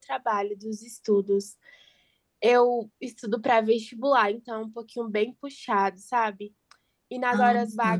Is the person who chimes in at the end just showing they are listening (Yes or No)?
Yes